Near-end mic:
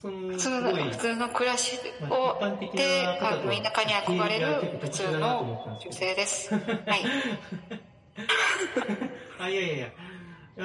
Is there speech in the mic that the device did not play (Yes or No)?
Yes